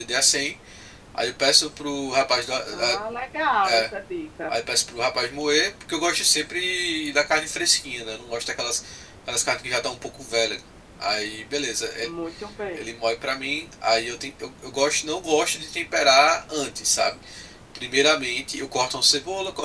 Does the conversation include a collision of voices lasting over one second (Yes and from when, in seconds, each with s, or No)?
No